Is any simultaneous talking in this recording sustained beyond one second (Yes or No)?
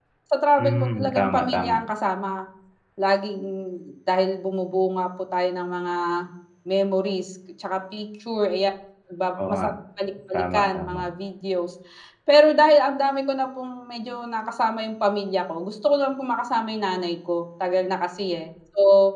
Yes